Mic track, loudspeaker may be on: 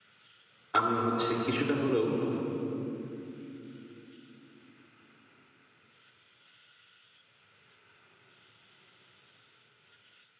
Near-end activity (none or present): present